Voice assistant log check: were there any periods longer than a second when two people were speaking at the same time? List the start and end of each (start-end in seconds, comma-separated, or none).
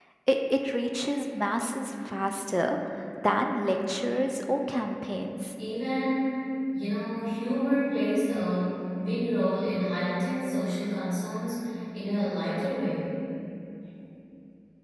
none